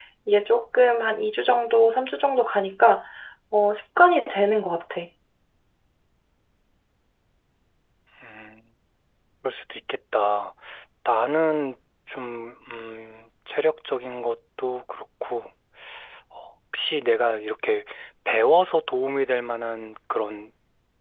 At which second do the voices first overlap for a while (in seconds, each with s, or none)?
none